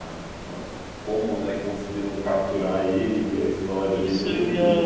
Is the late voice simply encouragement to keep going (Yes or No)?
No